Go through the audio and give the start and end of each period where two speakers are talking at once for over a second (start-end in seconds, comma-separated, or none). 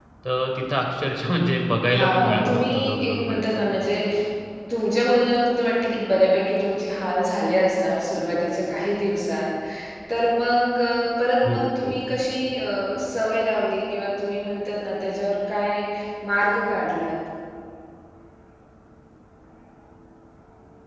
1.9-3.6